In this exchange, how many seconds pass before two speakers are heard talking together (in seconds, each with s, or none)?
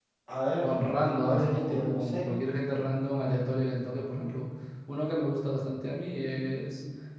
0.6 s